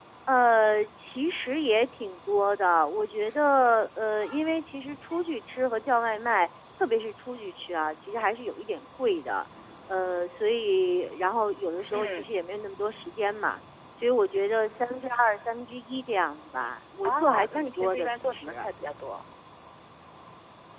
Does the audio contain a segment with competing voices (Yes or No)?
Yes